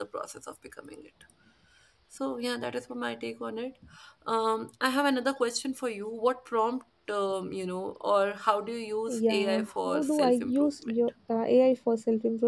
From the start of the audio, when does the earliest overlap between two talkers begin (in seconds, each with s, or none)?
9.1 s